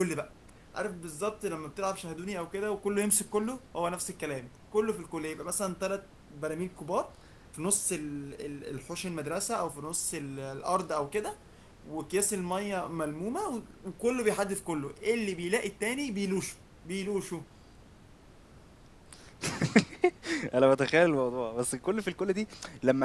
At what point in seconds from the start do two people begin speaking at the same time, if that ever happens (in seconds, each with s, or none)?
none